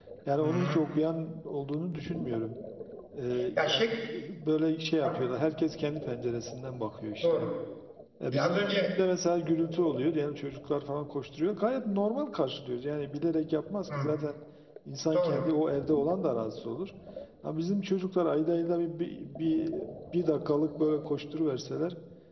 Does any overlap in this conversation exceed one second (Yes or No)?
No